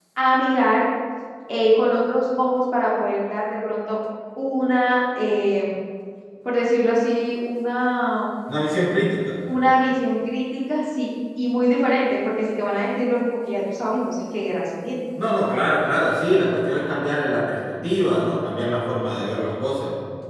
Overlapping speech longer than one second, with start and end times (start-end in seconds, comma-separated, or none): none